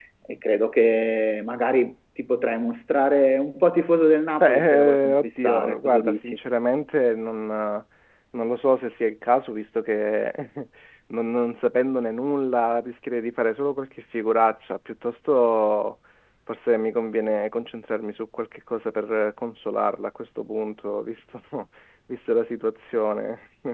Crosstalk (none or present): present